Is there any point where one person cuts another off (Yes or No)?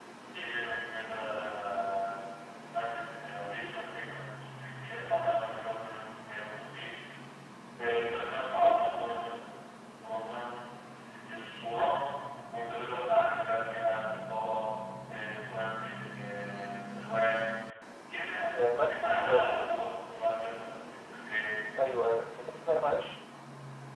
Yes